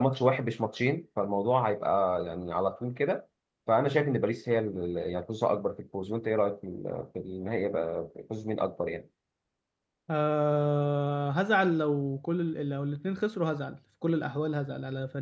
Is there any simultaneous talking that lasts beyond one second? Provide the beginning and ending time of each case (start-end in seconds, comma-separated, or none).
none